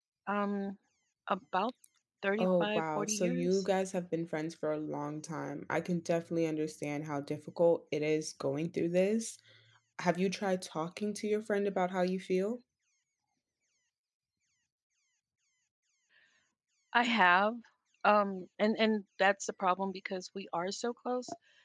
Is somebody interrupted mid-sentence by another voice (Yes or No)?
Yes